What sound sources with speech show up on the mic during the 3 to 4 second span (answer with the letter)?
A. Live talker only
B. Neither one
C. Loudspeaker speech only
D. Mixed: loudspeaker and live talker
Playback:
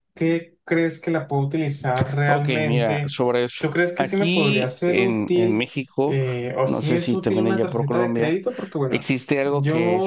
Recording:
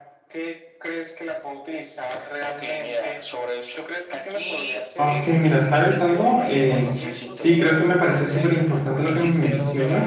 C